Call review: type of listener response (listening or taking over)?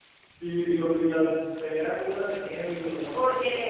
taking over